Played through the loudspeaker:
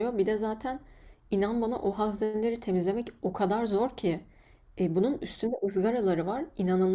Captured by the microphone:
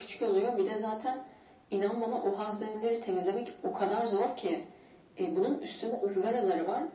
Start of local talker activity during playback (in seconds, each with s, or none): none